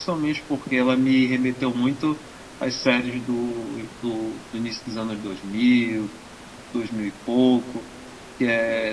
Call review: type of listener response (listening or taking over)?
listening